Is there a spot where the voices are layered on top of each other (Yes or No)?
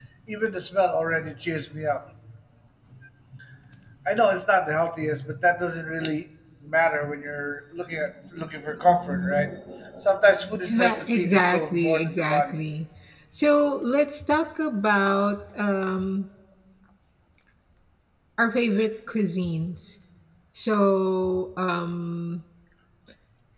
Yes